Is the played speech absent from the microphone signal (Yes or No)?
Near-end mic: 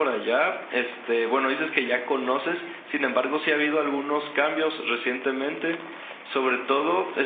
No